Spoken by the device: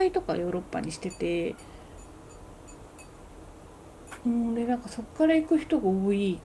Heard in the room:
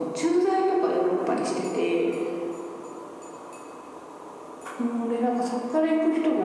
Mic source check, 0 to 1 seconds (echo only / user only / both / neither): echo only